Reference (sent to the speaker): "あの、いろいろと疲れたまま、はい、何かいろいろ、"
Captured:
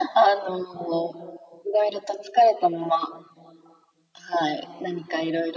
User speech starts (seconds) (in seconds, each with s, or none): none